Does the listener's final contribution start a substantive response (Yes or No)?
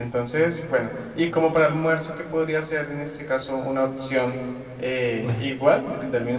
No